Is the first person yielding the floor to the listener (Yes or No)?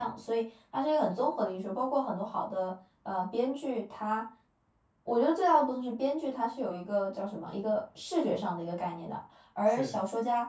No